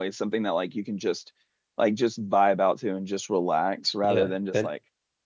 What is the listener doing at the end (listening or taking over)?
taking over